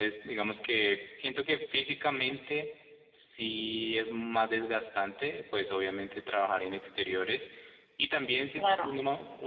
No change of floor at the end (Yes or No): Yes